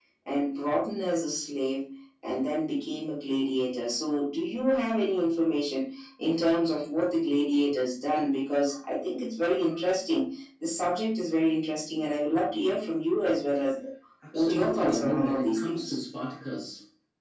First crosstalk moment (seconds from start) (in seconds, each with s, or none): 14.3 s